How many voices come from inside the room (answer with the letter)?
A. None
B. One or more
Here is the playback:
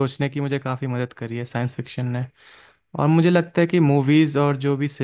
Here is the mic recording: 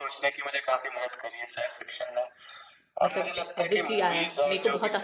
B